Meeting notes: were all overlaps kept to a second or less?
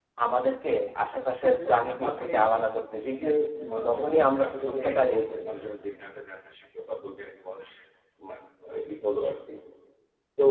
No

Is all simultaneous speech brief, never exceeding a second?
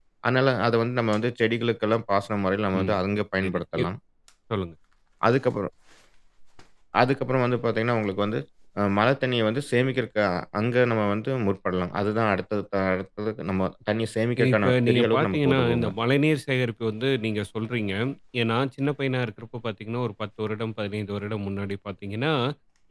No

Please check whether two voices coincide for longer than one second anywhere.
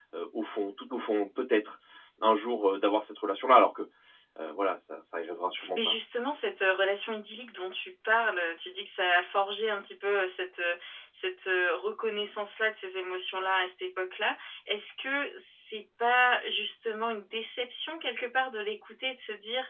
No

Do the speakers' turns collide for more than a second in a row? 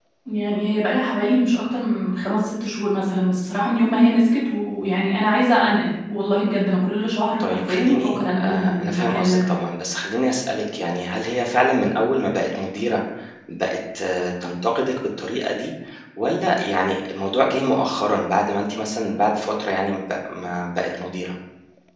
Yes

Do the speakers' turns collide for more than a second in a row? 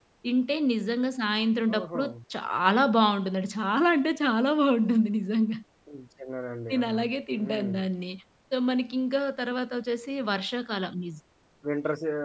No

